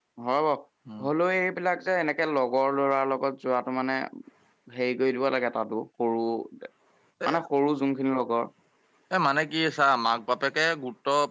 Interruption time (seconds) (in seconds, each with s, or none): none